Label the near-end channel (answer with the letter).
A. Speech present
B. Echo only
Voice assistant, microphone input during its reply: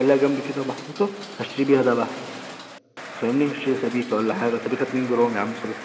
B